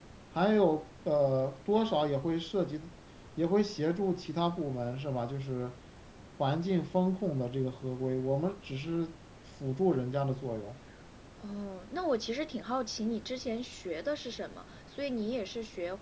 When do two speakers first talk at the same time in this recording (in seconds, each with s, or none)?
none